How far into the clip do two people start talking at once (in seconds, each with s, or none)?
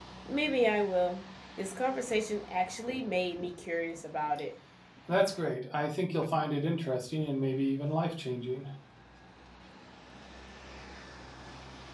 none